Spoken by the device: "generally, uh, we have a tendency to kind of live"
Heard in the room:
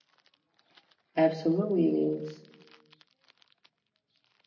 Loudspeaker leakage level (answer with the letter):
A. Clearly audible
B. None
B